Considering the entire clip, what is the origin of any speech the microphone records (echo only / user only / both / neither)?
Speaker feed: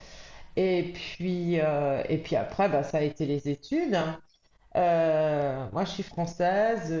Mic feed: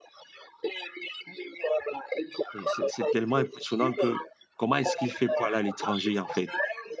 both